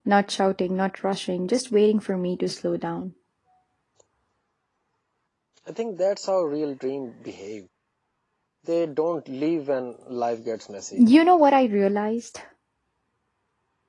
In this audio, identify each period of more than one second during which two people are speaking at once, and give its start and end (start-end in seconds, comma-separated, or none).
none